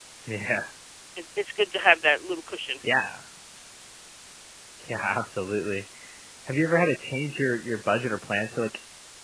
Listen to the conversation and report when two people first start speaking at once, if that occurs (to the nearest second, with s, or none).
none